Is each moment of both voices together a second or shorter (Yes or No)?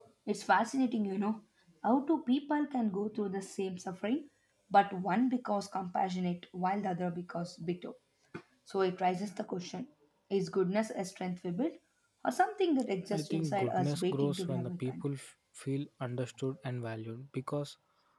No